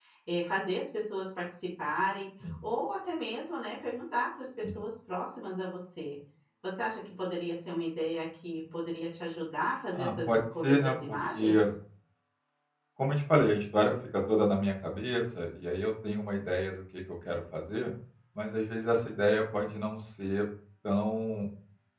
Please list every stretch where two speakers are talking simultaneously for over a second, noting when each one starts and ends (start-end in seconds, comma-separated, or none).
9.9-11.6